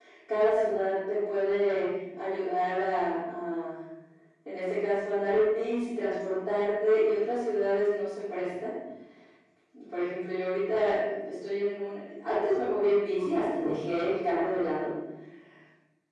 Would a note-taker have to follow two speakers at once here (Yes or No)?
No